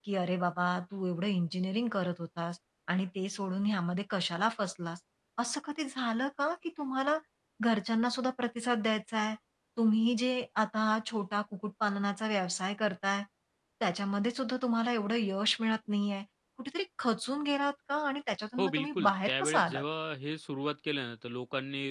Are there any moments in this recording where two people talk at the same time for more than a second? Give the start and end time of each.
18.6-19.8

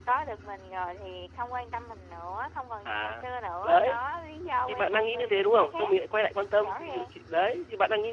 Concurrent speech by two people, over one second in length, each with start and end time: 4.7-5.9

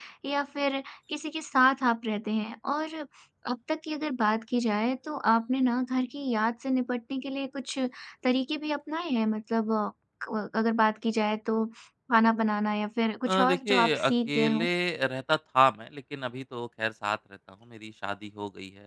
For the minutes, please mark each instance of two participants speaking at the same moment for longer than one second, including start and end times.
13.3-14.7

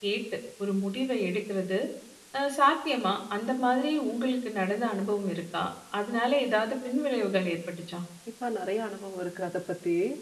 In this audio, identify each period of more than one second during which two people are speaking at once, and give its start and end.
none

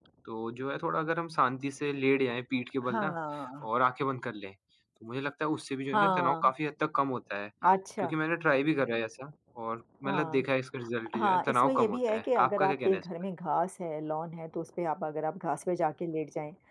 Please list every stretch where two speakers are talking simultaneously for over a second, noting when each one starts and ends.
11.1-13.0

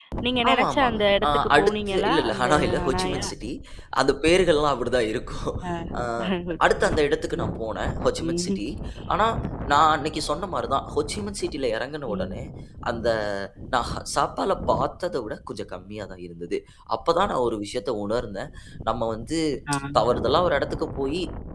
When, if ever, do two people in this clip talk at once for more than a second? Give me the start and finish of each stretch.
1.3-3.2

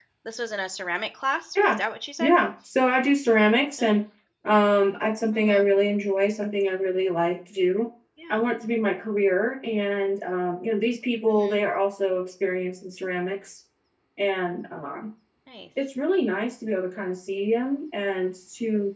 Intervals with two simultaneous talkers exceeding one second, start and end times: none

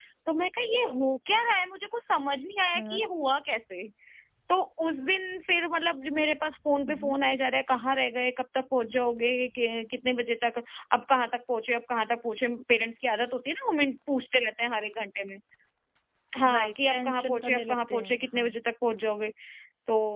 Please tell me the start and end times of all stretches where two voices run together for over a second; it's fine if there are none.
16.5-18.5

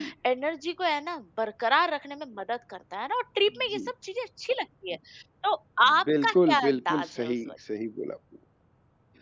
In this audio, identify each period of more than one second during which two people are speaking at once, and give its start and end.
6.0-7.5

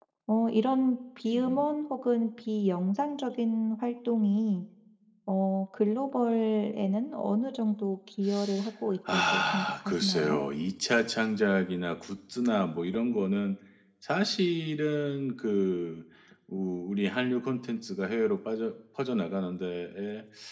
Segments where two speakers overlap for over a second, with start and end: 9.1-10.4

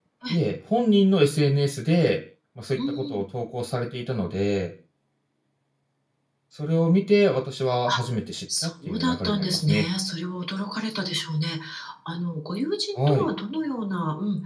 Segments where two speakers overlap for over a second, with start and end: 8.6-9.8

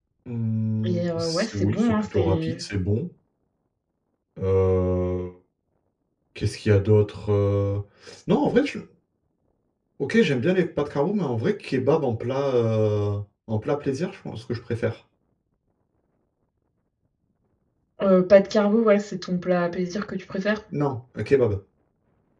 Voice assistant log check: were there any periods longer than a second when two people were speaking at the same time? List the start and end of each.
0.8-2.6

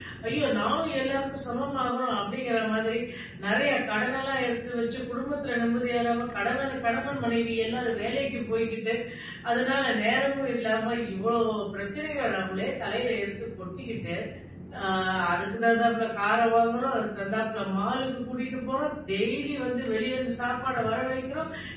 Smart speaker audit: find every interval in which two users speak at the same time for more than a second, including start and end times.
none

